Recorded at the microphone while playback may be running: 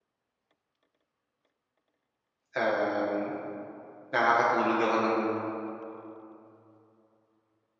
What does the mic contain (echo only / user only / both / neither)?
user only